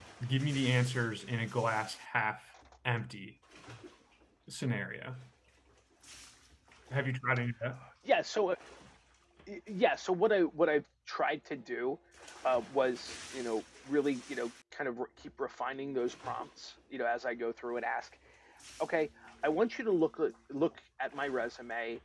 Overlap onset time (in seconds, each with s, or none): none